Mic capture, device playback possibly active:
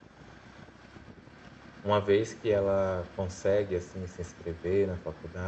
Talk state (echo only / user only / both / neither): user only